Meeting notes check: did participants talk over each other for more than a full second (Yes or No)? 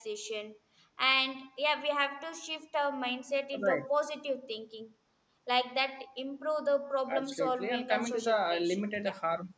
Yes